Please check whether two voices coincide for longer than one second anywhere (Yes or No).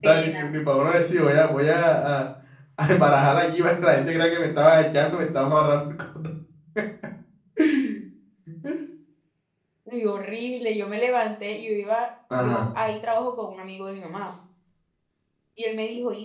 No